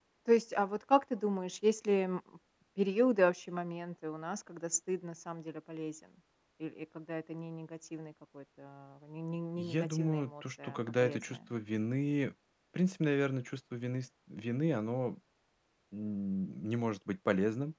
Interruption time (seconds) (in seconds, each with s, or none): 9.6 s